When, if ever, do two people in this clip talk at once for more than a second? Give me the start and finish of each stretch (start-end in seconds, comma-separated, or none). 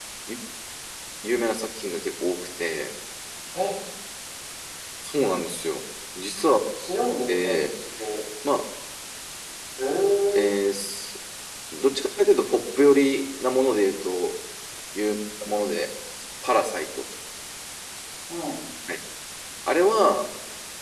none